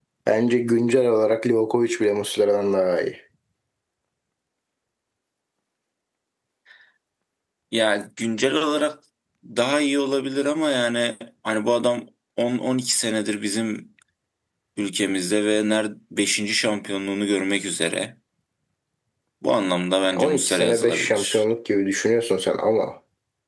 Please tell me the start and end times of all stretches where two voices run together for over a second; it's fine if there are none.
20.1-21.4

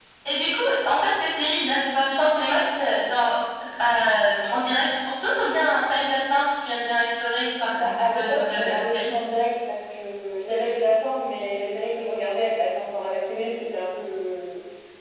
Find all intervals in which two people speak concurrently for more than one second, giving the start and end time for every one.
7.7-9.1

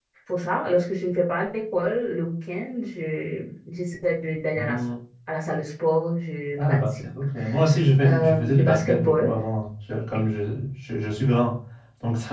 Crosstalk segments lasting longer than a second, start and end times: 8.0-9.3

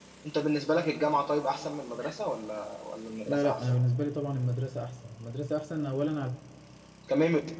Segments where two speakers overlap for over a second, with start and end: none

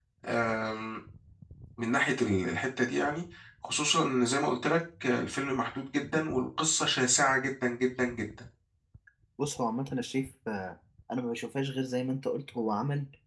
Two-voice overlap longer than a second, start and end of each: none

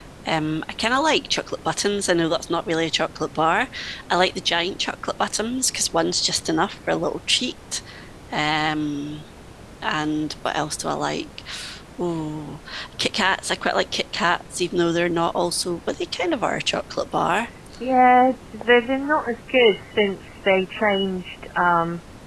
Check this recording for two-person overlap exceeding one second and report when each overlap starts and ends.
none

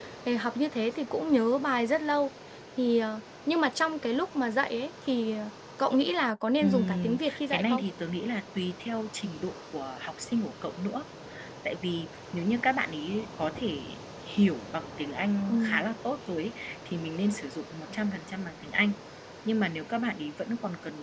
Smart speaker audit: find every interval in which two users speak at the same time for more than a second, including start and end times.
6.6-7.8

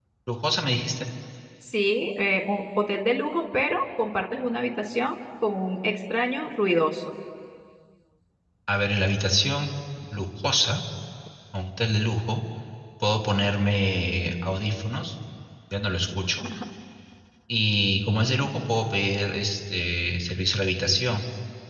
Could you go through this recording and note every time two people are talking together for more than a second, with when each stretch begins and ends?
none

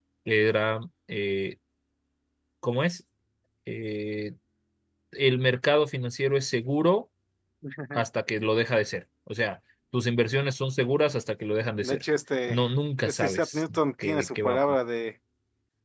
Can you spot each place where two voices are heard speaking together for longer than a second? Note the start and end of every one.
13.0-14.6

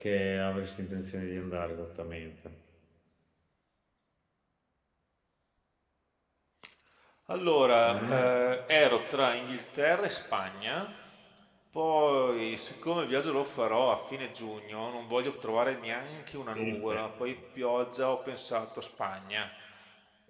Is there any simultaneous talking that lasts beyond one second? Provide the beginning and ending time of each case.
none

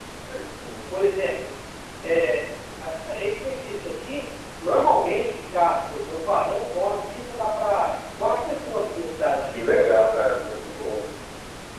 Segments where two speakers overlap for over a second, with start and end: none

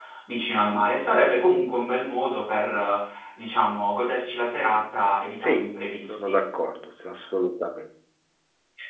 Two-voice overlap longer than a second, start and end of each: none

